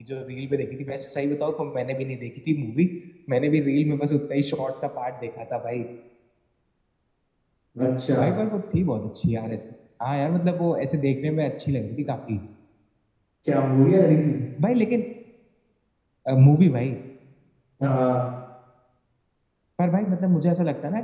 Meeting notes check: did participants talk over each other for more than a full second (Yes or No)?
No